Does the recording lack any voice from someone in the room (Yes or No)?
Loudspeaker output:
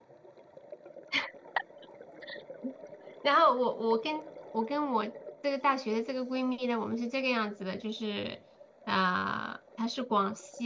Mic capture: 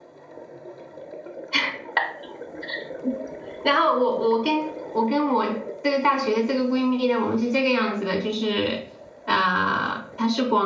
Yes